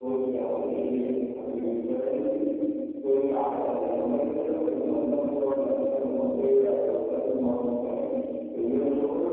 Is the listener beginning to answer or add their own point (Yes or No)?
No